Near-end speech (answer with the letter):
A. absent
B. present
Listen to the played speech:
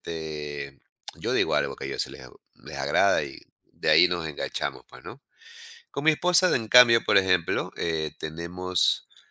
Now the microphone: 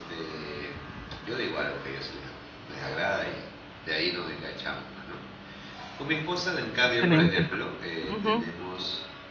B